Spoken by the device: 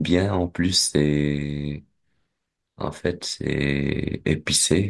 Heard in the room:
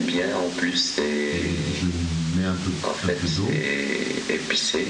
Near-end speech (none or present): present